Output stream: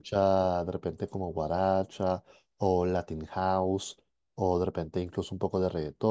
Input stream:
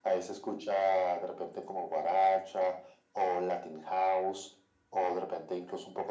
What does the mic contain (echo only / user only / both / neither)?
echo only